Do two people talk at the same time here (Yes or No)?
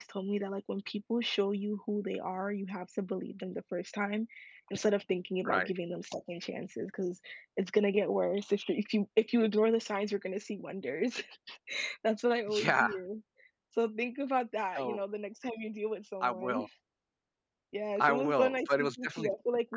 Yes